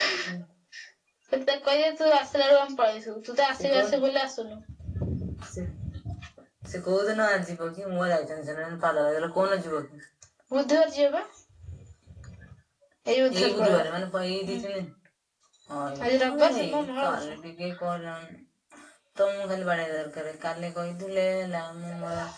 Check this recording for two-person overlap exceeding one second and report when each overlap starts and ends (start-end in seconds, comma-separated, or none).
16.0-17.2